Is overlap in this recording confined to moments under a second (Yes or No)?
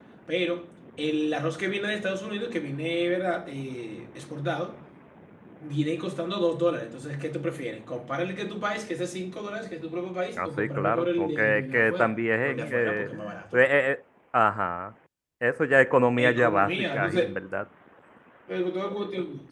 No